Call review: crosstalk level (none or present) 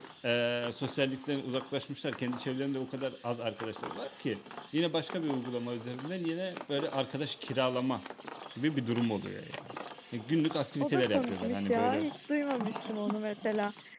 present